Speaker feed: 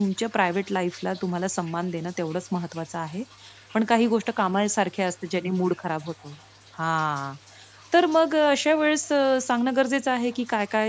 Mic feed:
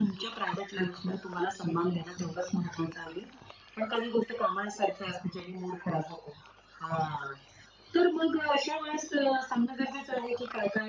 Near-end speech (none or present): none